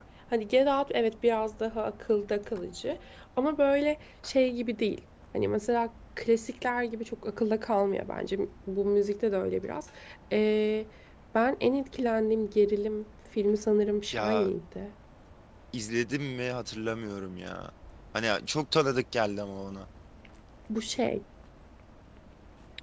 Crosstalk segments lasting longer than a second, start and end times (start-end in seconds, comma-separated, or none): none